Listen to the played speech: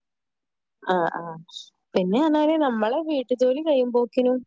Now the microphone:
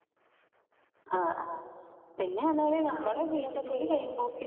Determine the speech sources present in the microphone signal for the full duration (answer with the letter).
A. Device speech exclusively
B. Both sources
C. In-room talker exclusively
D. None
B